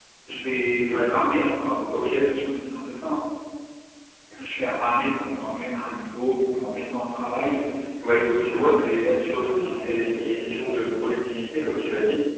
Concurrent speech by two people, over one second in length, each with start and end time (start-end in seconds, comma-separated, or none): 8.1-10.5